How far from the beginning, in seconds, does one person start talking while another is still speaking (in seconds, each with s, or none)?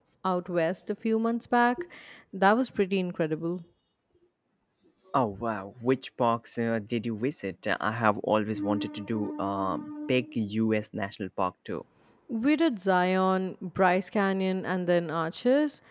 none